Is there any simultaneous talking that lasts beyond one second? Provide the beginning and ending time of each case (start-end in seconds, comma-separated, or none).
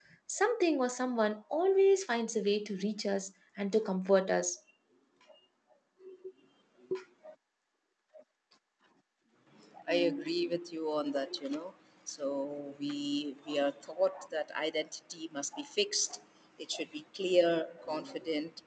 none